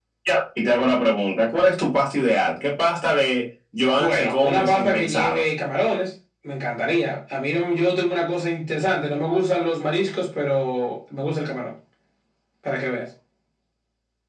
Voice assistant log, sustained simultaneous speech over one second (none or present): present